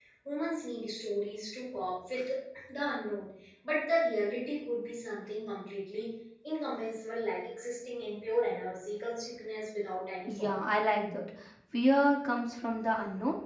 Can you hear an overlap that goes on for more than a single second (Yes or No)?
No